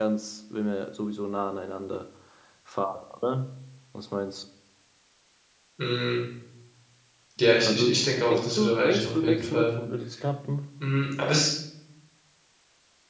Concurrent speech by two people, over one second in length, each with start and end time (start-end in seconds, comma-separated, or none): 7.6-9.8